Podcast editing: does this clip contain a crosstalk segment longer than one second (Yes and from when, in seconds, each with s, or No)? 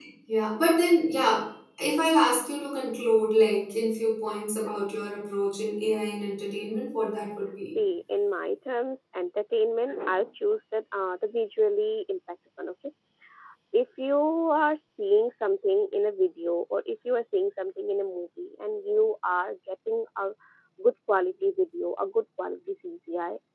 No